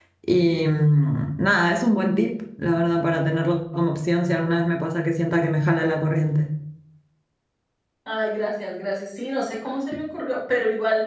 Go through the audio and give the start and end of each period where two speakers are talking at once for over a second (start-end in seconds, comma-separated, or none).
none